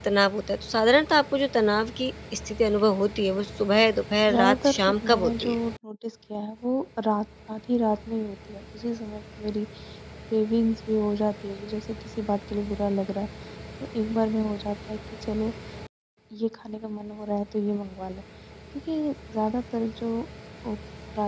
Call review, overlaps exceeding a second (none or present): present